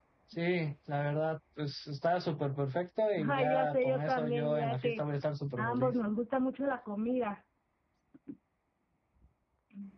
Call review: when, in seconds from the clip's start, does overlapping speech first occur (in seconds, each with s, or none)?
3.2 s